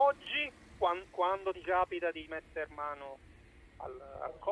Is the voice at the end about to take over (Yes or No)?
No